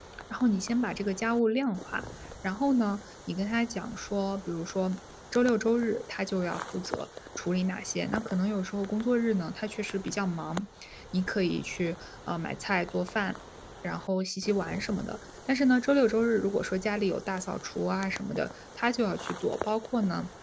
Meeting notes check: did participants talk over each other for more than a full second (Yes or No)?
No